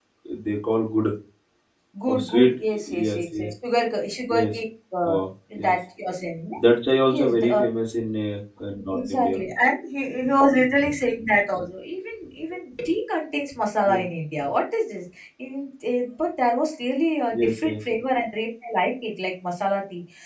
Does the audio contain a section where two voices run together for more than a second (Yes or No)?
Yes